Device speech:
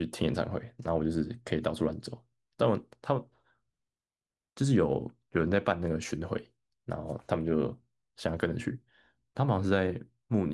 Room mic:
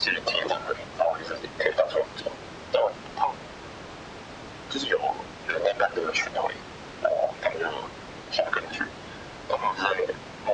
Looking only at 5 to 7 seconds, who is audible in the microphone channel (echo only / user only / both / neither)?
echo only